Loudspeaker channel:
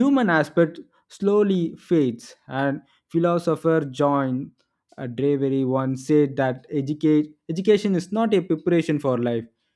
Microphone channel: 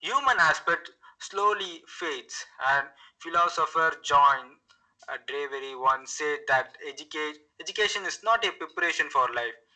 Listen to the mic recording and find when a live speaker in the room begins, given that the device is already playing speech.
none

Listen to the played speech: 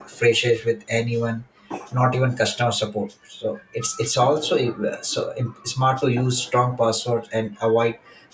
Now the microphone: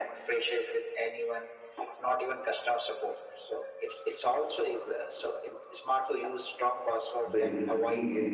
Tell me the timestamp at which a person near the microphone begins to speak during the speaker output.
7.3 s

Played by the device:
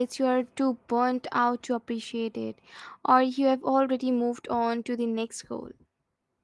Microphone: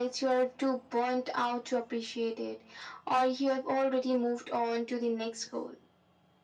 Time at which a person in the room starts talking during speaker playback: none

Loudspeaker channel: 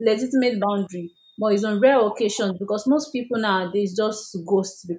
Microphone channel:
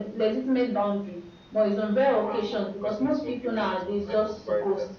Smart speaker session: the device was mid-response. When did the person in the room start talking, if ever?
2.2 s

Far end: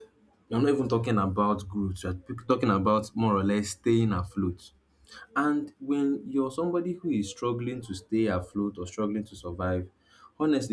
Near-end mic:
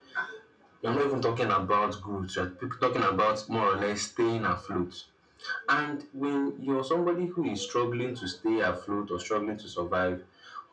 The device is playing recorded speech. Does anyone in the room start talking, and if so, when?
none

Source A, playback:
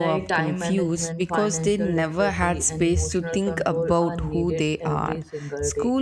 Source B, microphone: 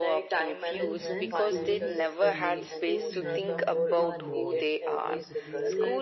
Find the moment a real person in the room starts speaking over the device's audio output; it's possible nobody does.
0.7 s

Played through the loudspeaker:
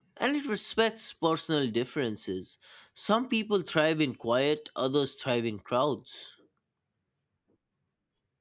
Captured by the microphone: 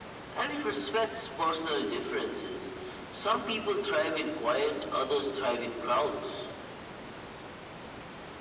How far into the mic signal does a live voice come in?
none

